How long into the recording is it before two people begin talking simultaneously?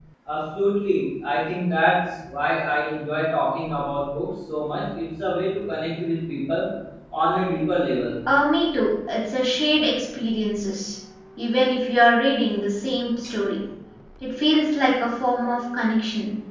none

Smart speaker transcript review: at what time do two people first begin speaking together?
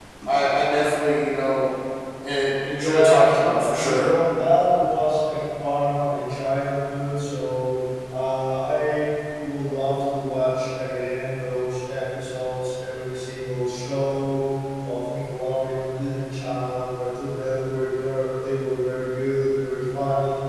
2.8 s

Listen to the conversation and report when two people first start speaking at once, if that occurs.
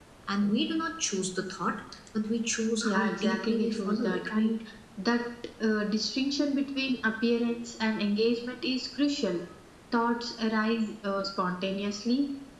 2.8 s

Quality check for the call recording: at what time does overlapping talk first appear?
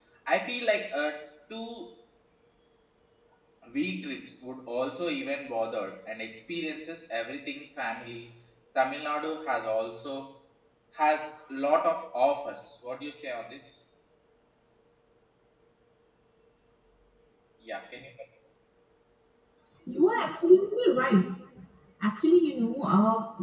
none

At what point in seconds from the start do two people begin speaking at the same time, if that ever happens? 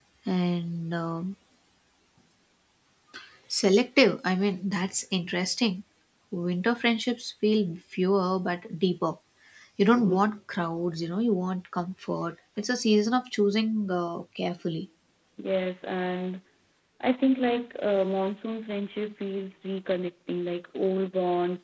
none

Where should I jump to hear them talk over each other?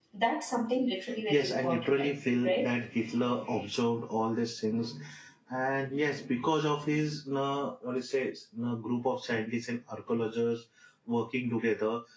1.3 s

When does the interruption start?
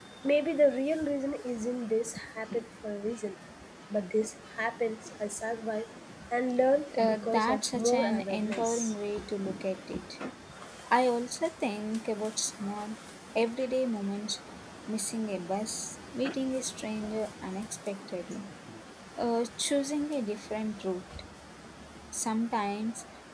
7.0 s

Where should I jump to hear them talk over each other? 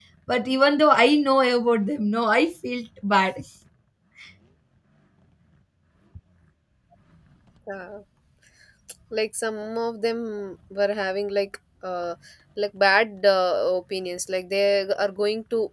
none

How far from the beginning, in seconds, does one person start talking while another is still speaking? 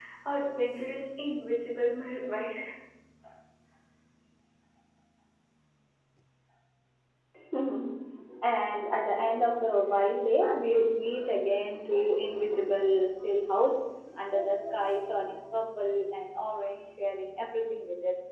none

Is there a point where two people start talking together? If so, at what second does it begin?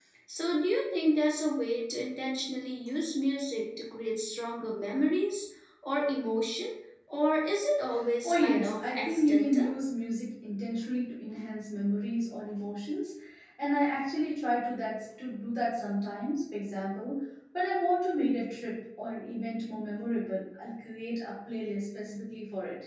8.2 s

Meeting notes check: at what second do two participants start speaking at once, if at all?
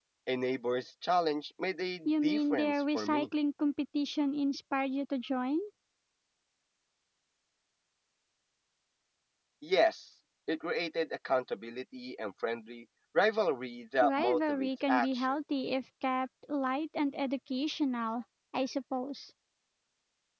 2.0 s

